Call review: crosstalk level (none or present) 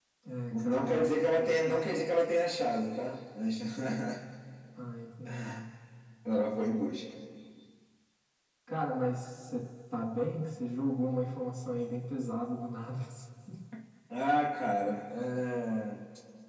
present